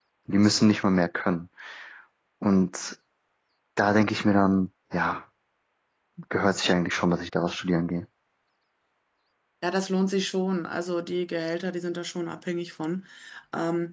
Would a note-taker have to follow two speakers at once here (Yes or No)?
No